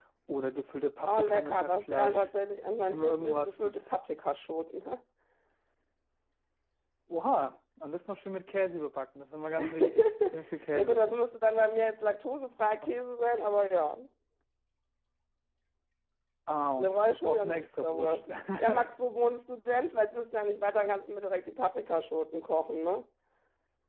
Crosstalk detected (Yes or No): Yes